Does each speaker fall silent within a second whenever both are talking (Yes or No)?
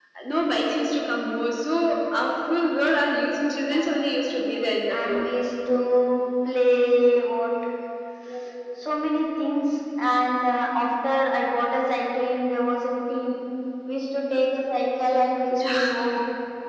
Yes